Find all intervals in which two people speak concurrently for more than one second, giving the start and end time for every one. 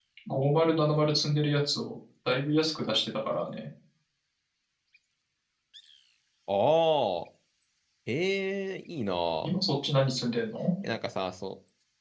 none

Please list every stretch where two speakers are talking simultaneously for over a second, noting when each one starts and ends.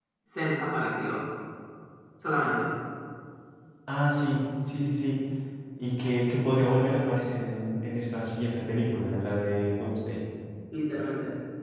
none

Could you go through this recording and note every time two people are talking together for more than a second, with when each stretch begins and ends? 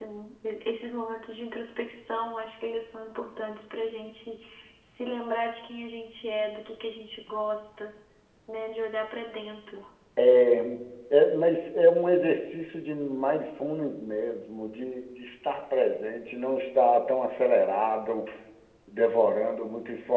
none

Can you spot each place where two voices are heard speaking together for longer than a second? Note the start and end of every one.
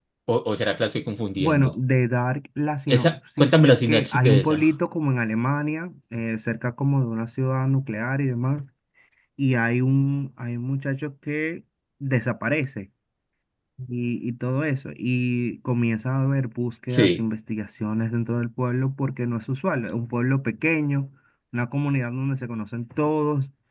2.9-4.6

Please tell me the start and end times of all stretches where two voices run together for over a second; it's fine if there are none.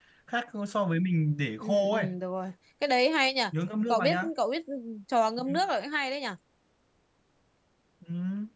none

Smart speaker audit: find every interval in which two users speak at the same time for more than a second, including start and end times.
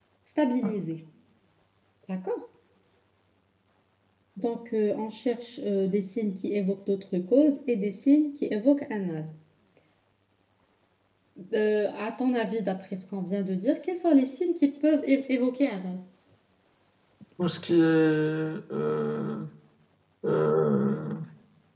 none

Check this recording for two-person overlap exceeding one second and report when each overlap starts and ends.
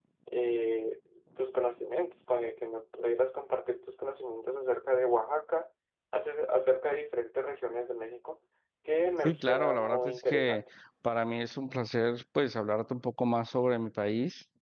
9.2-10.6

